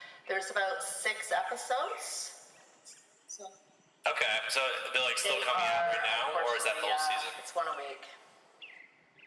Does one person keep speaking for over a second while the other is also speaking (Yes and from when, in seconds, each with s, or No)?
Yes, from 5.2 s